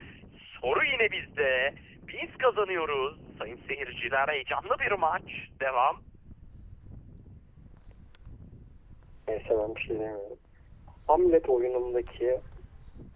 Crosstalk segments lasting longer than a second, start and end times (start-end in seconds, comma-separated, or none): none